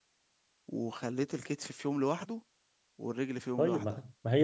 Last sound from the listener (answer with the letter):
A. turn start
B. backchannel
A